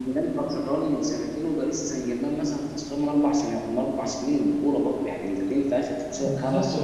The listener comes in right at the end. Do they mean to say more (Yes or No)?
Yes